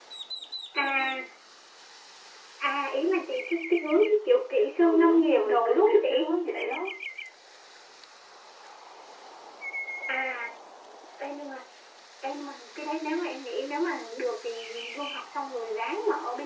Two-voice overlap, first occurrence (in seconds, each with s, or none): 4.8 s